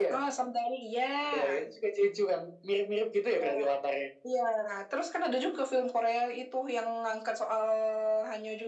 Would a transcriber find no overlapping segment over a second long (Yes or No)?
Yes